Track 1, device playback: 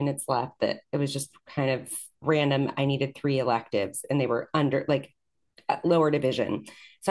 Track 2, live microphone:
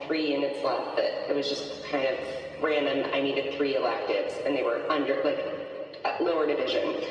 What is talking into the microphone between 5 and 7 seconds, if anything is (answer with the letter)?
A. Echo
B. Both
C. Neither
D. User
A